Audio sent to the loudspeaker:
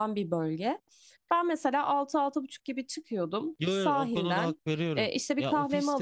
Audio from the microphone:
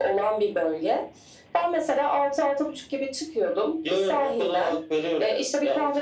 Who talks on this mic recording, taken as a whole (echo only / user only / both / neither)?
echo only